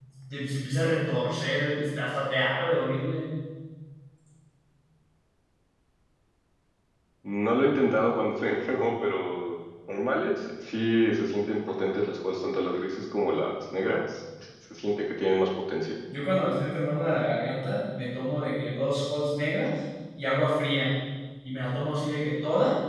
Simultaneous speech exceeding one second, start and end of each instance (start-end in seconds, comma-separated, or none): none